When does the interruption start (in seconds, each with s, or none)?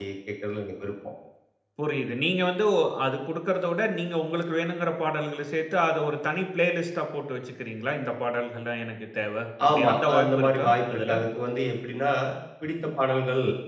9.6 s